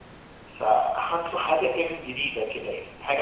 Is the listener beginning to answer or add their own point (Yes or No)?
No